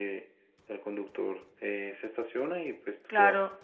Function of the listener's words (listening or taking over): taking over